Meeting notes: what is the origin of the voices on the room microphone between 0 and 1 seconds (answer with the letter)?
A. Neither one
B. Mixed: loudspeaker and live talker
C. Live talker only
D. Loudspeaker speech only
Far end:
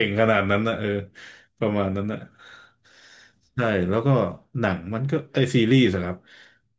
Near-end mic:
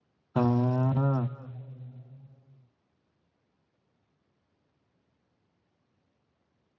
C